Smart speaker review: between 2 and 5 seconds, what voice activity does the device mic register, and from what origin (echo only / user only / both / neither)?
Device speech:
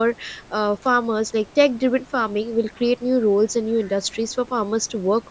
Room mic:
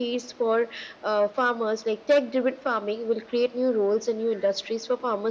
echo only